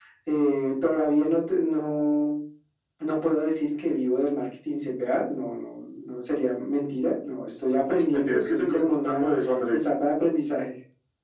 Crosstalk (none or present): present